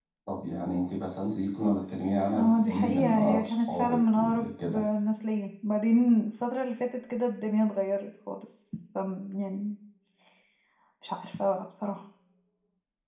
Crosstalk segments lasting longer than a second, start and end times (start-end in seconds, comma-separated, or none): 2.4-4.8